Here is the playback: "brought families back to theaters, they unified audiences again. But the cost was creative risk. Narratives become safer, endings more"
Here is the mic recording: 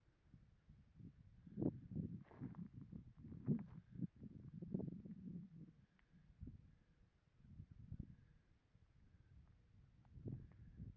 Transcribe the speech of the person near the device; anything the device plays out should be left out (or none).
none